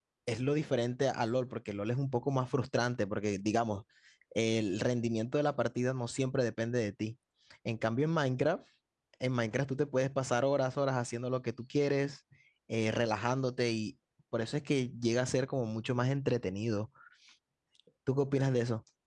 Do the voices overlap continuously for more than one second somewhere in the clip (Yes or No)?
No